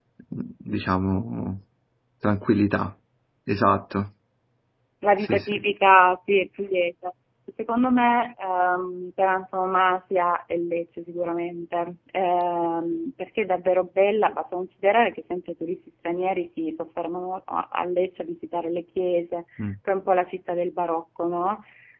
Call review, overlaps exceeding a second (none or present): none